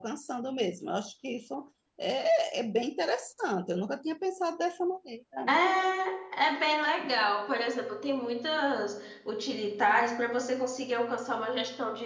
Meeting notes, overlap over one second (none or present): none